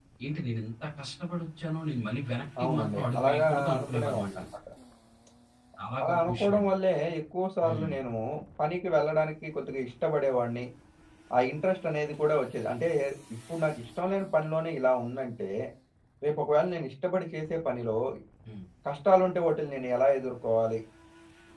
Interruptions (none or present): present